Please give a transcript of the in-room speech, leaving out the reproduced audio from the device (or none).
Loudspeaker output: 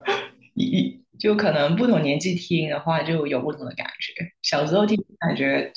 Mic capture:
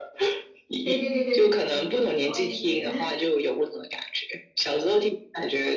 对对对对对对对对对，我也觉得，